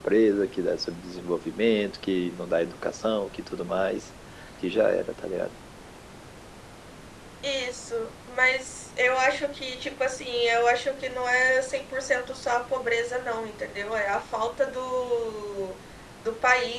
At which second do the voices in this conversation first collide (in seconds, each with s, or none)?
none